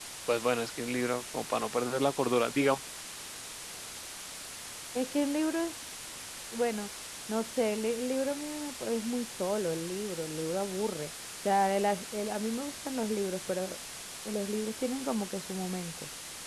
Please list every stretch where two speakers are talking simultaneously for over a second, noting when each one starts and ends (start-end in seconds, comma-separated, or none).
none